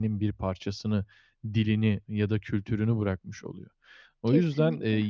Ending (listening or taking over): listening